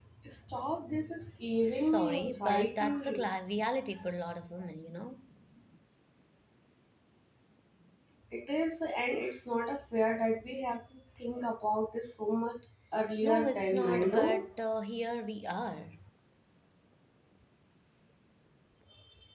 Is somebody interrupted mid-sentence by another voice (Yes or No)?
Yes